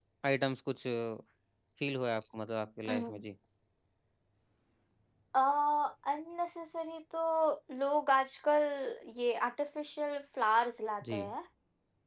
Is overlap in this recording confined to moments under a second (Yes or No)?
Yes